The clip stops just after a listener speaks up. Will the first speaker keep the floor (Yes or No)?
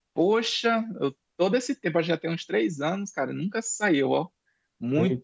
Yes